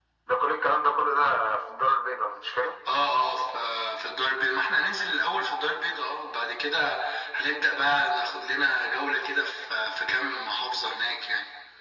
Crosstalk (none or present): none